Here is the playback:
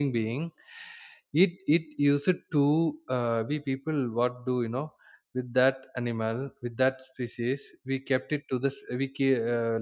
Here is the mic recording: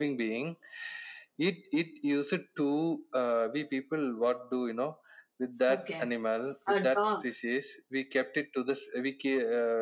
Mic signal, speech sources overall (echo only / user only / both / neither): both